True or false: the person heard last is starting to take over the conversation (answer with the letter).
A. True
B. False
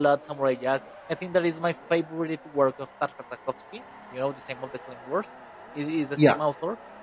B